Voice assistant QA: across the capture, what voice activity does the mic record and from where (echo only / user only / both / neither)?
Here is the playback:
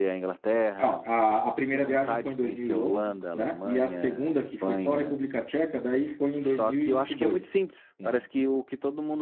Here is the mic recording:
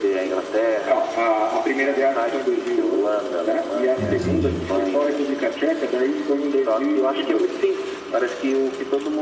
both